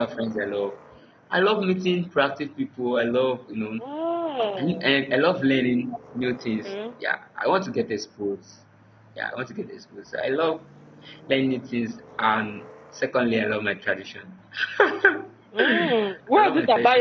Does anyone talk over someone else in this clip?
Yes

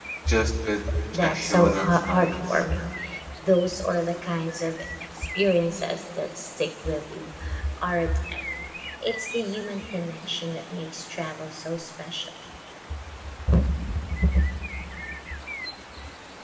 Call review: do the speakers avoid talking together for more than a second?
No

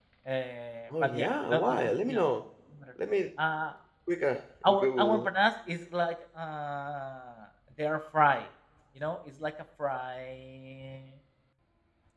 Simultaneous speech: Yes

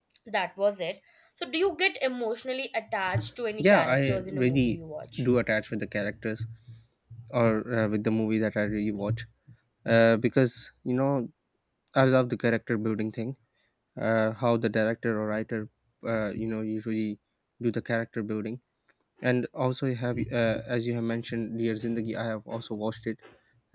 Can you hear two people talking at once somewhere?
Yes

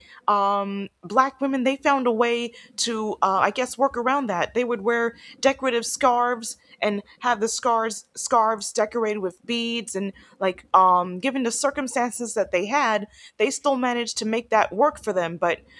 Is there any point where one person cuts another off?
No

